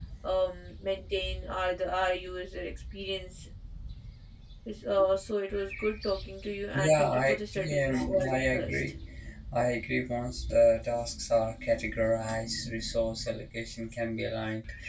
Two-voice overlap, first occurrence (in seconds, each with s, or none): 6.7 s